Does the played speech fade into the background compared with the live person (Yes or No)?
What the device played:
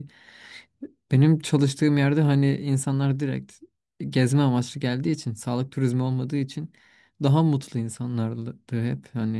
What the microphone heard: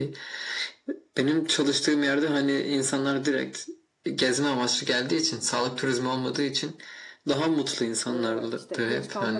No